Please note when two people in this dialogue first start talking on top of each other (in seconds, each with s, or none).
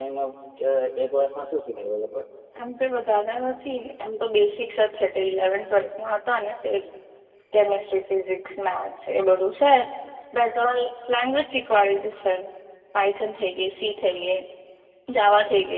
none